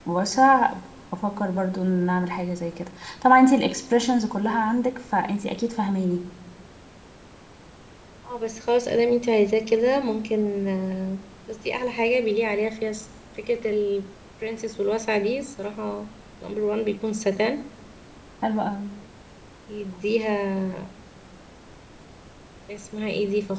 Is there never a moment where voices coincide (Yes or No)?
Yes